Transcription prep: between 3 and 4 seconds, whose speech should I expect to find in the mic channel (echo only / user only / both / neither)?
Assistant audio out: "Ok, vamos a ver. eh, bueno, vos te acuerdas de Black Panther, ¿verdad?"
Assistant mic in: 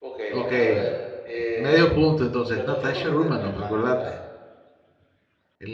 both